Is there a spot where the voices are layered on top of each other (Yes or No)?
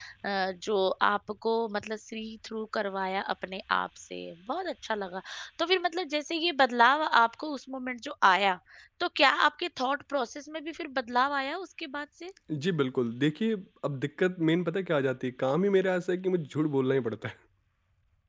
No